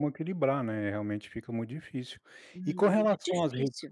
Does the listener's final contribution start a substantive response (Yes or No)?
Yes